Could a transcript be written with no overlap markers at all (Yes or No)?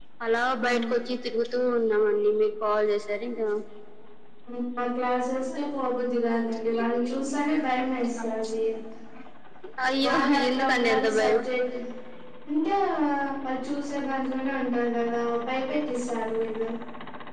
No